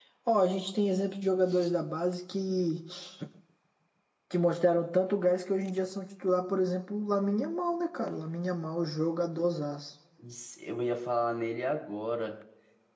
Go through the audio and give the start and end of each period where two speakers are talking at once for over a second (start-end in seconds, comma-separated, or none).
none